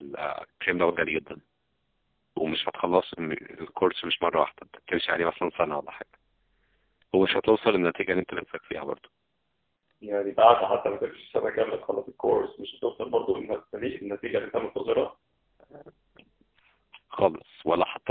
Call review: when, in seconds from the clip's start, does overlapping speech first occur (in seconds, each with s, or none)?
none